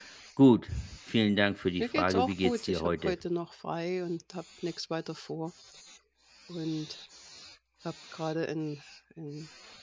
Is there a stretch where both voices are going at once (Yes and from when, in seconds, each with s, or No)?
Yes, from 1.8 s